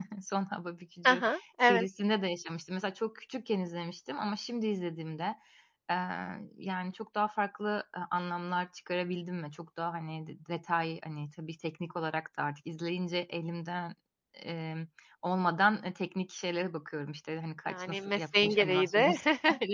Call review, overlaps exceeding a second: present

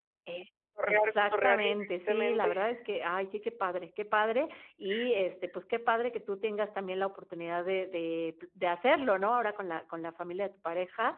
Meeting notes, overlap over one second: present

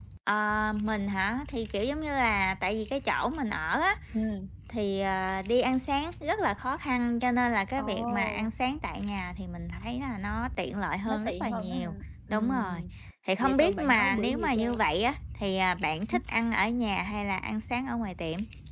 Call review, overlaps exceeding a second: present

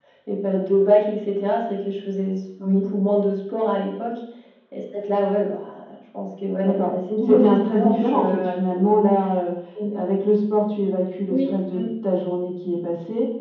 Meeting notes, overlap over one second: present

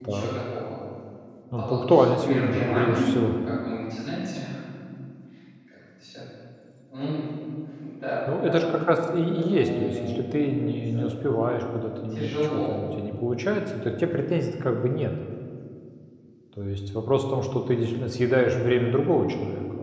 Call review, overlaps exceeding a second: present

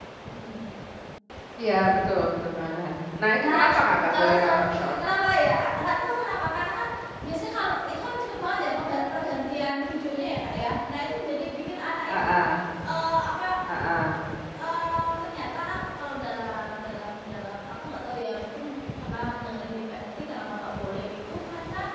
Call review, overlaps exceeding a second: present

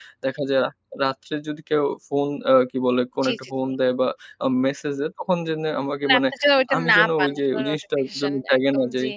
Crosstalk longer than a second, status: present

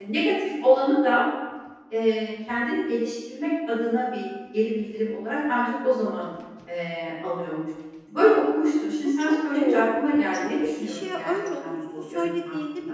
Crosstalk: present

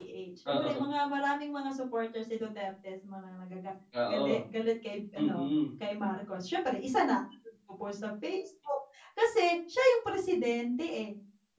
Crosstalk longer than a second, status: none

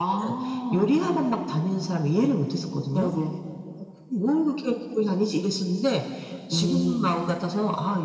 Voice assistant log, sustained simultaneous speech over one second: none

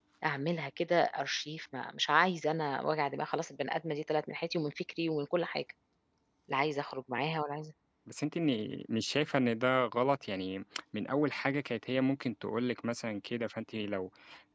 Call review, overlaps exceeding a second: none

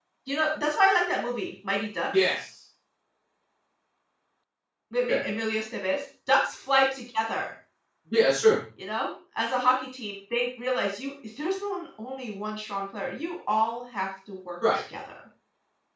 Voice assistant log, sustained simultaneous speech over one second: none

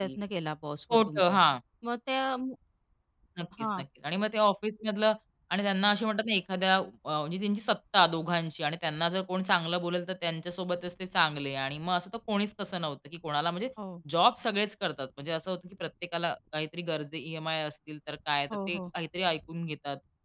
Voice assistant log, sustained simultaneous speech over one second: none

